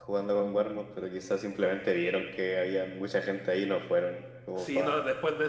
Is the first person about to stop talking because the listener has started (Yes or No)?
Yes